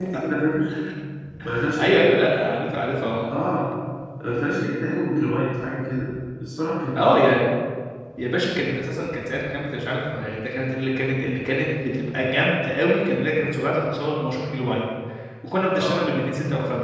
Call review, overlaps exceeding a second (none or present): none